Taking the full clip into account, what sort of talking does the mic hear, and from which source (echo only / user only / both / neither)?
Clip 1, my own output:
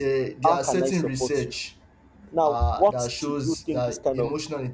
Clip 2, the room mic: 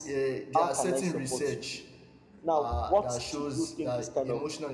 echo only